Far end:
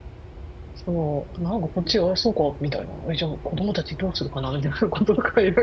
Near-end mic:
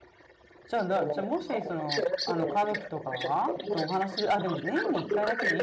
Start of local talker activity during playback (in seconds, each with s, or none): 0.7 s